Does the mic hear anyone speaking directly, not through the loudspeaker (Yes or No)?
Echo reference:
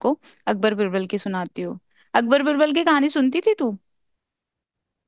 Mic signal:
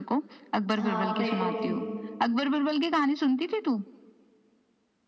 Yes